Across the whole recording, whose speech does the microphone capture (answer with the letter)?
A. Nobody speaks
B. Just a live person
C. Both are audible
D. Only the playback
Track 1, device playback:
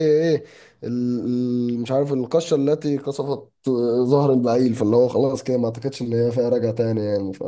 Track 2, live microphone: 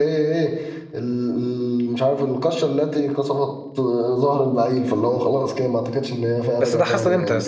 C